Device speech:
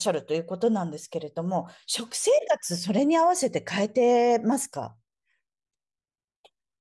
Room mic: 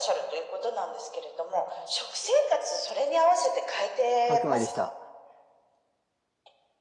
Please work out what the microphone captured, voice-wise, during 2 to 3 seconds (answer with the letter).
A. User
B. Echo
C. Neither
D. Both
B